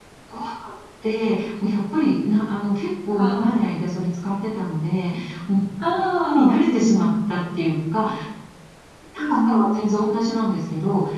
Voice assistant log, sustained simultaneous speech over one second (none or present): present